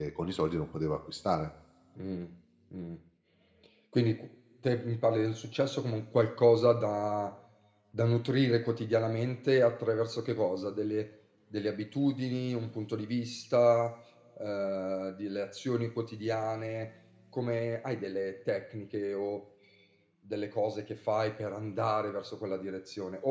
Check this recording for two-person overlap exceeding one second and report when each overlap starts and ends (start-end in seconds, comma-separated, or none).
none